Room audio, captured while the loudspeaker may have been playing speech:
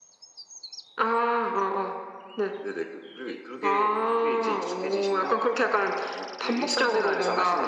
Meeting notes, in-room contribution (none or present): none